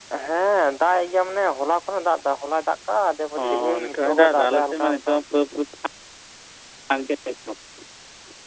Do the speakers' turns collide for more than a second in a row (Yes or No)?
Yes